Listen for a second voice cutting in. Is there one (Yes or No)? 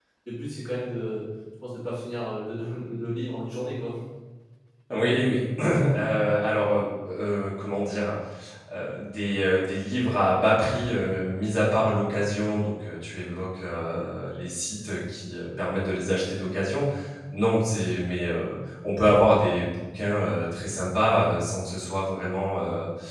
No